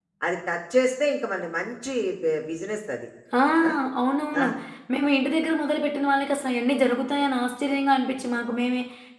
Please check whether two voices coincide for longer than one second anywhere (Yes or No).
No